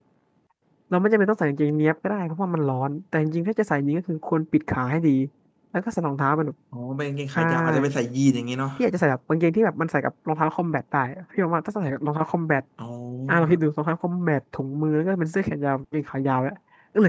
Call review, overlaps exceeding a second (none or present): none